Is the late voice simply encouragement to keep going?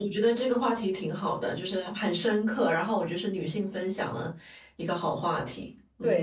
No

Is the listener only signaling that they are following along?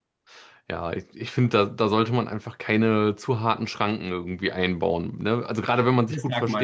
No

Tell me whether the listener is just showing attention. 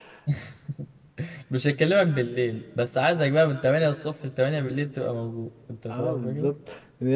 No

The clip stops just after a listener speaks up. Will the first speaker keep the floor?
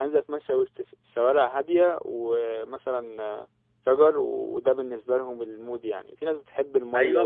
No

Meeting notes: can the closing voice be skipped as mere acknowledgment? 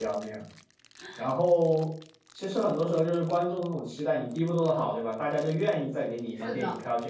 Yes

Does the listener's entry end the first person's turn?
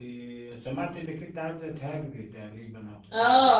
Yes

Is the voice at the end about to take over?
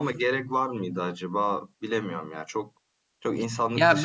Yes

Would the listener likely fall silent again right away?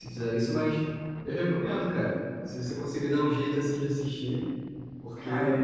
Yes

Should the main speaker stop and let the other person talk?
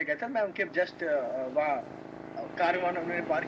No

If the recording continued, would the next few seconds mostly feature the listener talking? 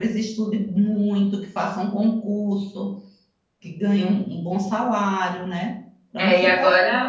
Yes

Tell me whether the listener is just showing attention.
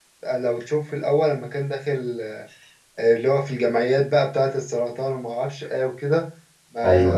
Yes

